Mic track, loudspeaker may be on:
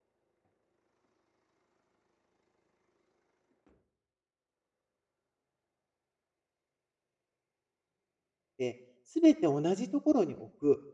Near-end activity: present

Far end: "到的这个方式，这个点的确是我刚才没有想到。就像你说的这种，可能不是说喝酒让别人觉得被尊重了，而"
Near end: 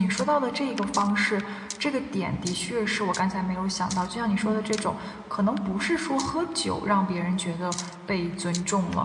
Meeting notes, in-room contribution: present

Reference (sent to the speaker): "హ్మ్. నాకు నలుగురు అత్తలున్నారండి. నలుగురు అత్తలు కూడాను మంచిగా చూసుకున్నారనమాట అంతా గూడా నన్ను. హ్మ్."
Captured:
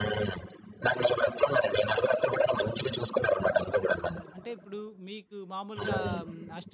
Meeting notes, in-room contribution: present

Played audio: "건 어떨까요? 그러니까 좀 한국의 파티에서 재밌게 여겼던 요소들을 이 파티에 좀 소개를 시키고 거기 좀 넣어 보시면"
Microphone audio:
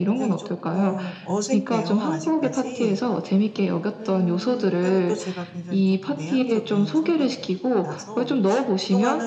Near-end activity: present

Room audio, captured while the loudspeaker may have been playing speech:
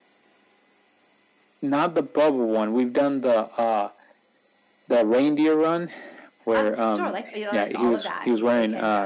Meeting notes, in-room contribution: present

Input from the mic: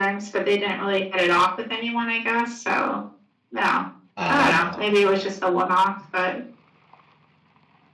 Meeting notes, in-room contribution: present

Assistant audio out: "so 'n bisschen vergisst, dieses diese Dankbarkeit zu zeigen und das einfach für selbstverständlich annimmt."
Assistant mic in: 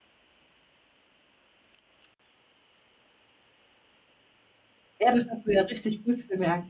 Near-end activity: present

